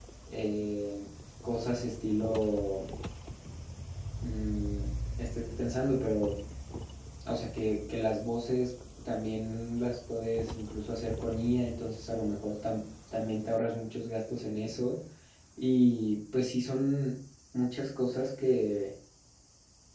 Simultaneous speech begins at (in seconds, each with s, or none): none